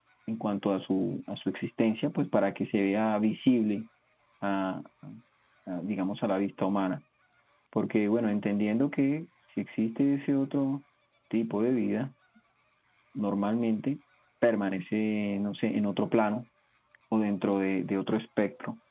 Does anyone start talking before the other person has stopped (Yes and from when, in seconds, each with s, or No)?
No